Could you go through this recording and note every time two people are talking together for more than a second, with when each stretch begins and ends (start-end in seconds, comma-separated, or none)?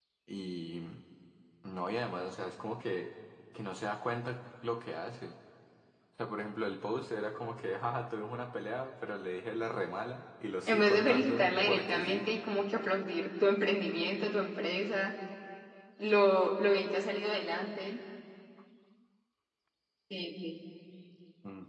10.7-12.3